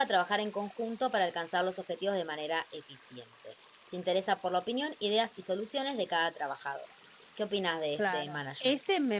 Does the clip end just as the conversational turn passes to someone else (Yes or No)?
Yes